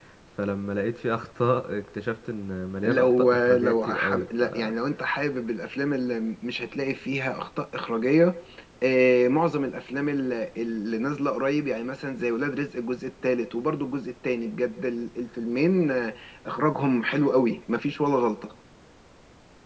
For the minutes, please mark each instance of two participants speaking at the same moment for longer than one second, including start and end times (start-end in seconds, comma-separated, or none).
2.8-4.4